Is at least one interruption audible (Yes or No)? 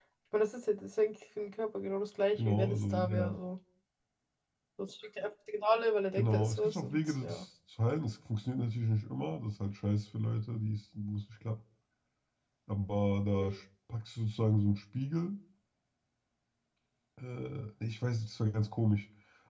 Yes